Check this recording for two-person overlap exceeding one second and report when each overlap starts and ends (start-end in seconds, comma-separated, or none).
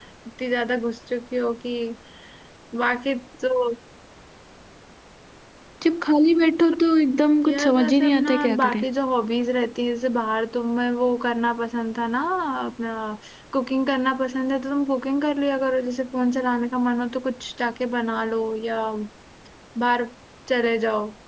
7.4-8.8